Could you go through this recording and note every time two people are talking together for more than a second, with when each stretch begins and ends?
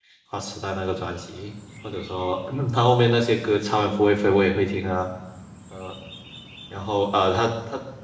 none

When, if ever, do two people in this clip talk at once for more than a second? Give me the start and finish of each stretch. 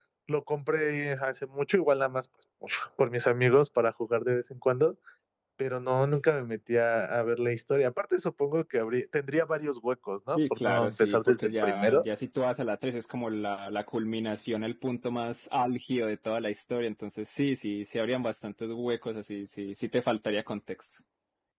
10.3-12.1

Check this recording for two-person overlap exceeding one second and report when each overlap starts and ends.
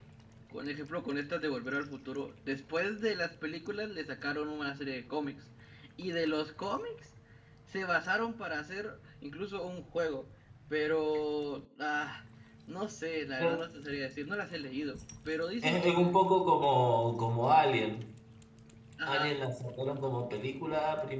none

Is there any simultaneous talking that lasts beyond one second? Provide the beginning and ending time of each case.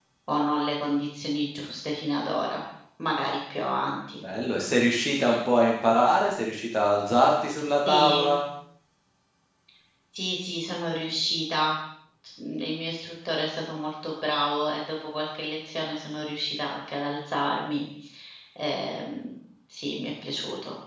none

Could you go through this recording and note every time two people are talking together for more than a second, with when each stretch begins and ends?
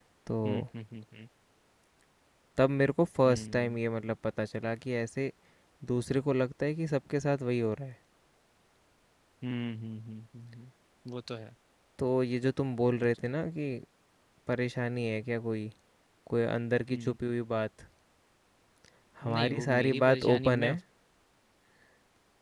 19.2-20.7

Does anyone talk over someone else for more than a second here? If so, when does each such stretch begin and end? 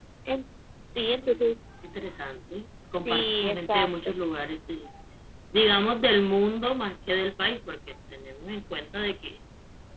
2.9-4.1

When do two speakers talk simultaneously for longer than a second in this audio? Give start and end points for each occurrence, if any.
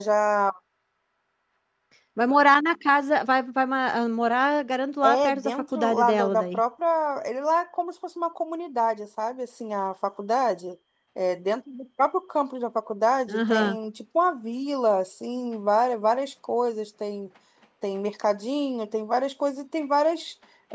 5.0-6.6

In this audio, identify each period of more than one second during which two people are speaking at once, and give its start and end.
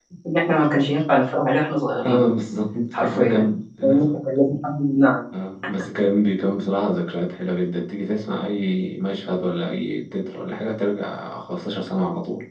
none

